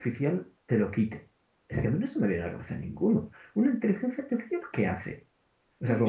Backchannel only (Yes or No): No